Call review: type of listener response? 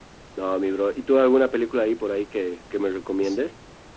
taking over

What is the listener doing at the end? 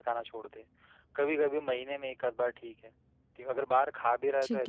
listening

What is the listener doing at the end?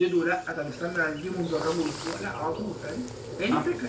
taking over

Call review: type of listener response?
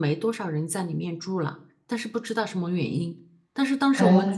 listening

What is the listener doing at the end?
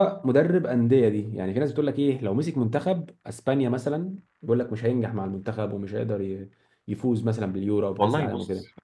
taking over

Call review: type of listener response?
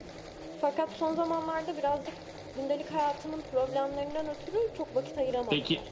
taking over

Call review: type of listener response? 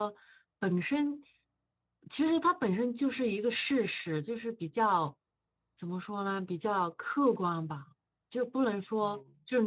listening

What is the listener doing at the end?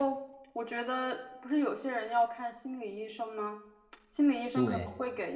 listening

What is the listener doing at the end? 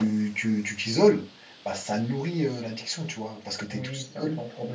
taking over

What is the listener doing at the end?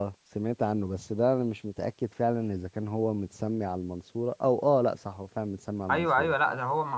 taking over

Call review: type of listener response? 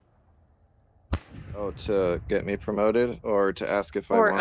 taking over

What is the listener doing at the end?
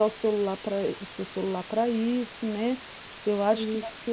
listening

